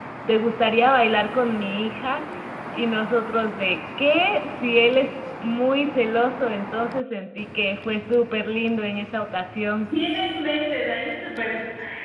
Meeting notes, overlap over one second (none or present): none